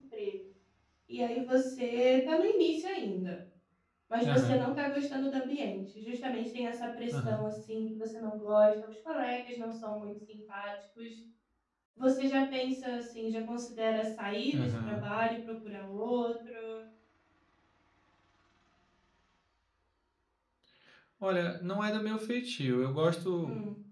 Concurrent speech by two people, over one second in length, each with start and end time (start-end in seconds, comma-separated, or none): none